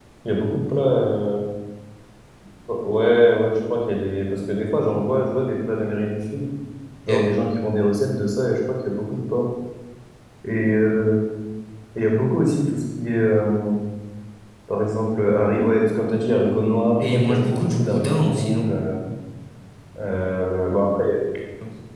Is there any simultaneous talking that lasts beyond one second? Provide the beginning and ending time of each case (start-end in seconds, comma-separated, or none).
17.1-18.7